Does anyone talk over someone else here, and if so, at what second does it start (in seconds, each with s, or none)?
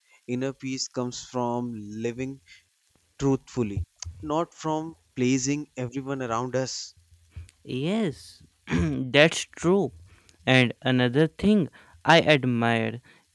none